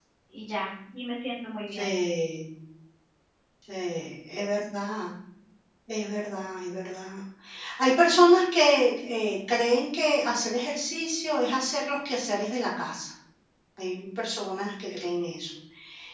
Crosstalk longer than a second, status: none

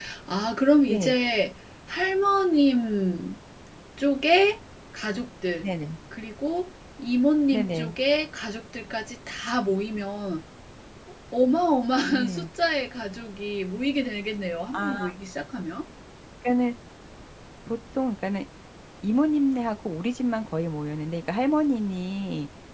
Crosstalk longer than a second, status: none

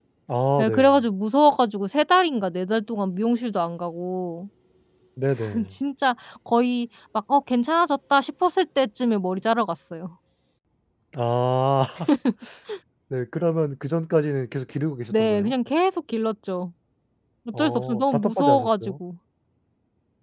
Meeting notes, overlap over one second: present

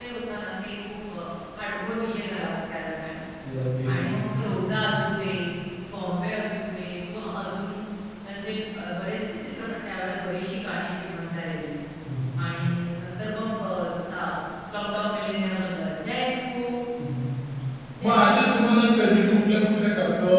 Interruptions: present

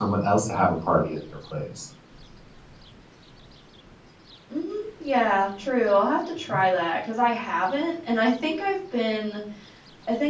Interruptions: none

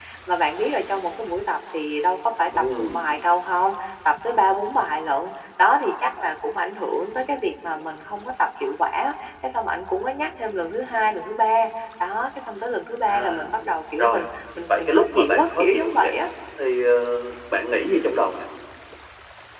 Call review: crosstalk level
present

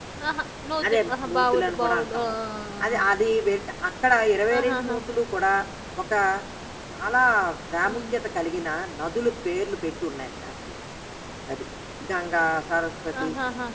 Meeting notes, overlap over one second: present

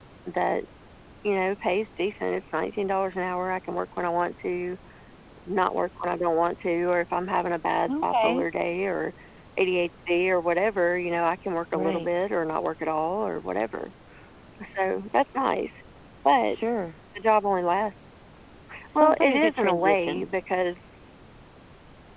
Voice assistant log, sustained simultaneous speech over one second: present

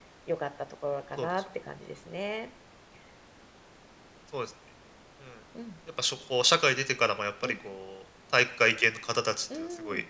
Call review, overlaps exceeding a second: none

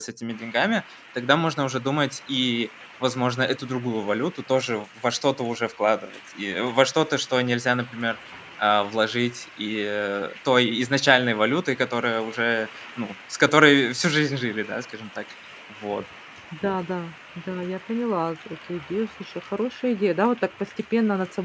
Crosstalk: none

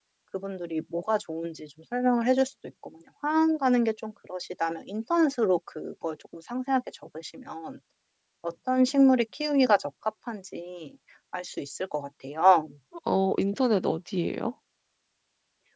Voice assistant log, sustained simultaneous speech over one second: none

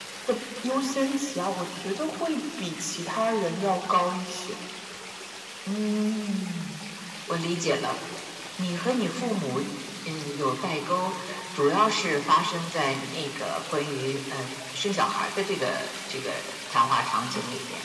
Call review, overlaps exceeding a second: none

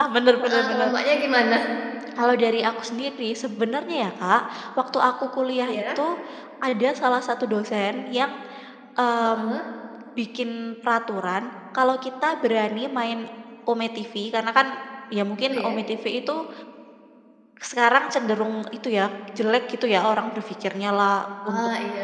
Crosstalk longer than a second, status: none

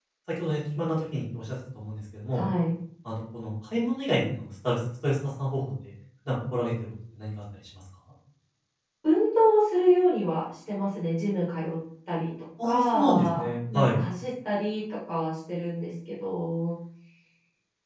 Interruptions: present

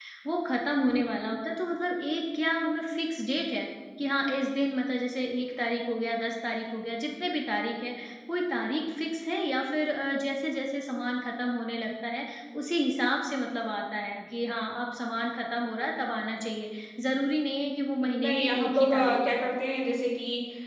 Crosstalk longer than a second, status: present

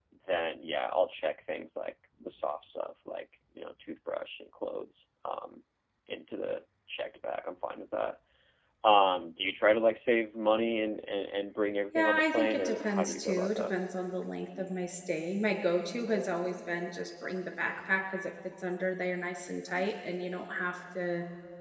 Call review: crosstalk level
present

